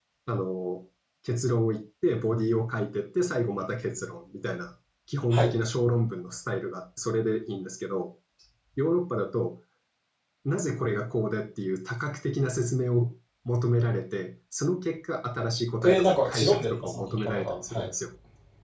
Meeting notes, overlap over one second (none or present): present